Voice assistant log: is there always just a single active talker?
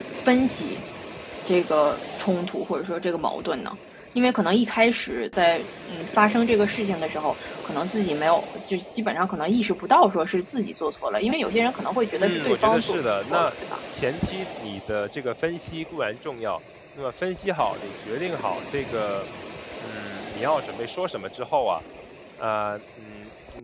No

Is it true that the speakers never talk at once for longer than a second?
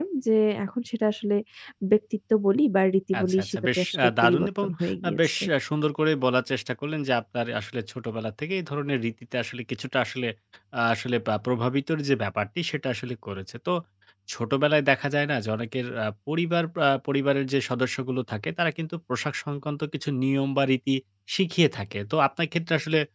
No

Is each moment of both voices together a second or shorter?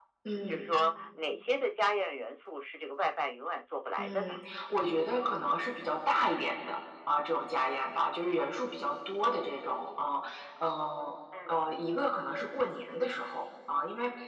Yes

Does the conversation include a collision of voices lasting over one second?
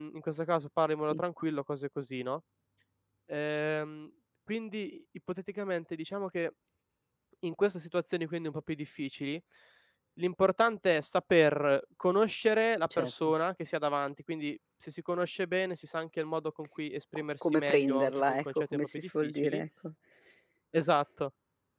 Yes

